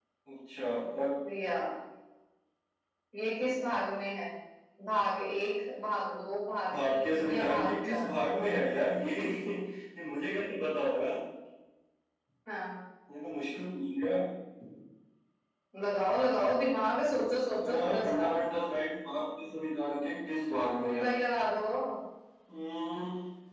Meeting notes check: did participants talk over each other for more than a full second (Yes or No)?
Yes